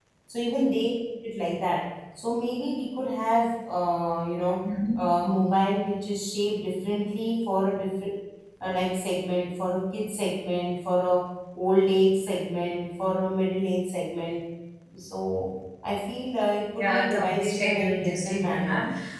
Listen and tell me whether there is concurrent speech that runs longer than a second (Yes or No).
Yes